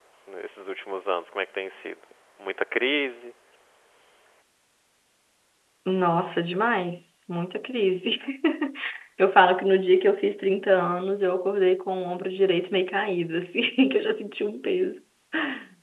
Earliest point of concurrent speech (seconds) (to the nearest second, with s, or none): none